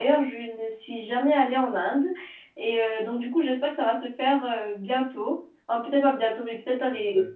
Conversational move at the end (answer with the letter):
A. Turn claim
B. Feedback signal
B